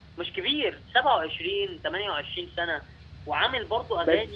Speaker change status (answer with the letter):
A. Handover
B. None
B